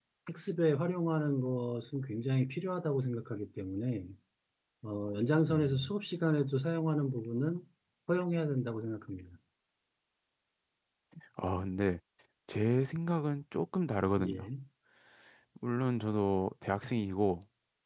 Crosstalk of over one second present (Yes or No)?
No